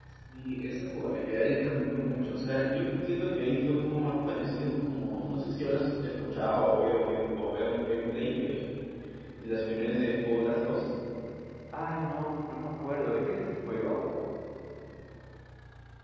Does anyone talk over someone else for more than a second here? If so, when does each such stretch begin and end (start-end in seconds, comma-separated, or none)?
none